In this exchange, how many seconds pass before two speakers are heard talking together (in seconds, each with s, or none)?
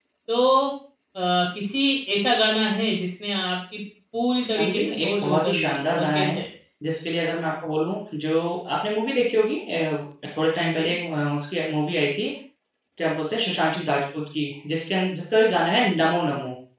4.6 s